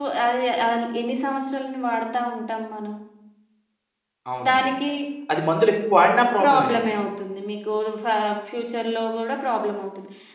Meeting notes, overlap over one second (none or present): none